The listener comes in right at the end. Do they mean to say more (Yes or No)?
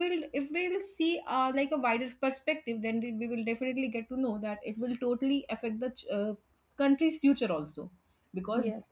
No